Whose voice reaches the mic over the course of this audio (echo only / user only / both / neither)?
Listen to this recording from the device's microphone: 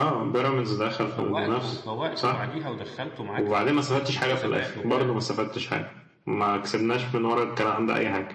both